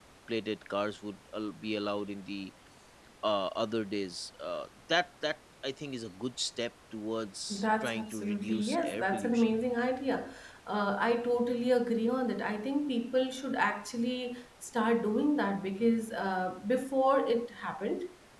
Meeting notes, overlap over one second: present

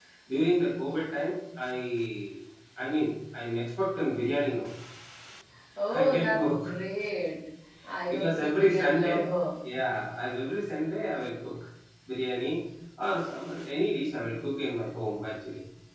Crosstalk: present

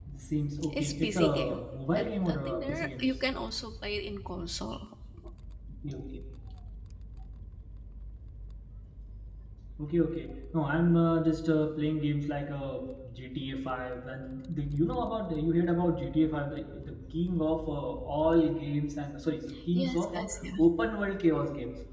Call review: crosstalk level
present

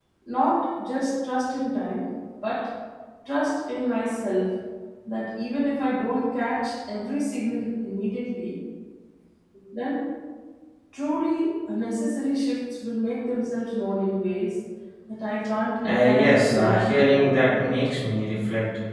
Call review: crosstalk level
present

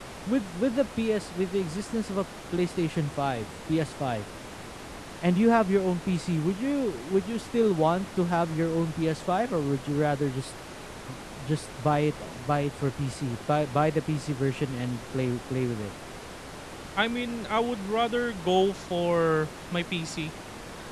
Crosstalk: none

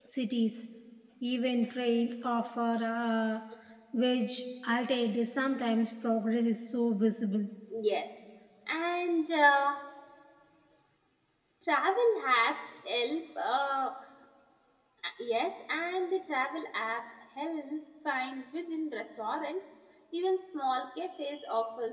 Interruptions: none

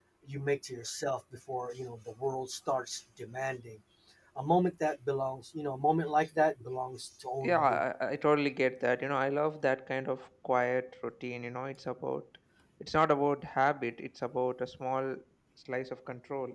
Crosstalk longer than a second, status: none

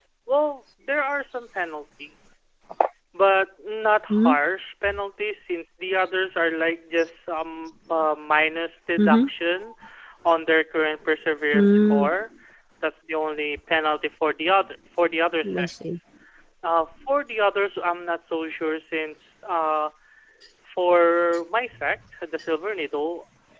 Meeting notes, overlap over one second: none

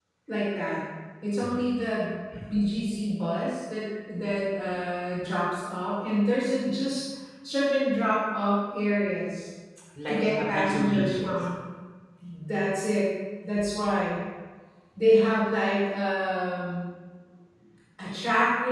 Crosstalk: present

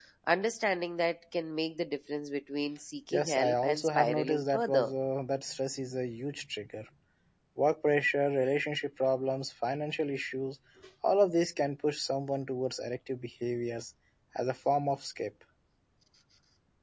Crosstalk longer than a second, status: present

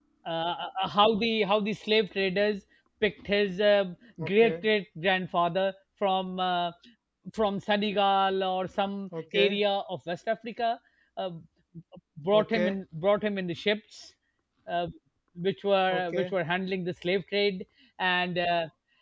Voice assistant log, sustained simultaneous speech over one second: none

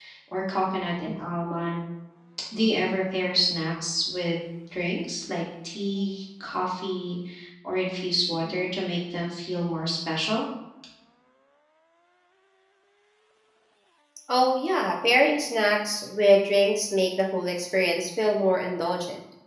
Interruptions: none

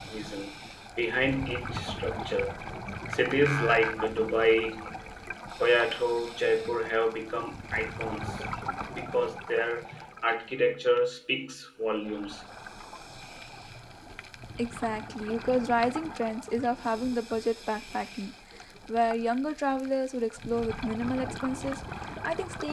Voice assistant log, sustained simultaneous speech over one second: none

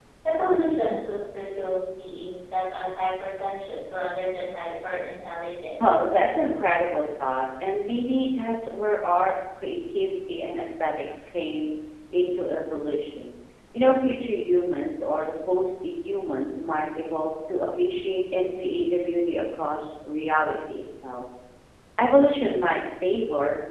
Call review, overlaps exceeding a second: none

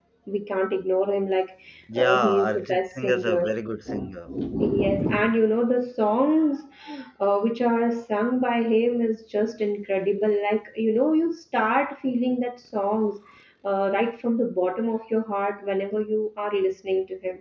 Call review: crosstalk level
present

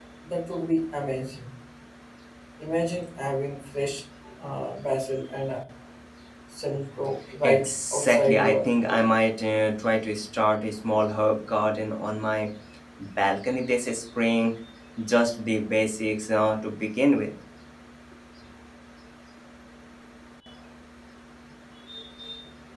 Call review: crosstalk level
present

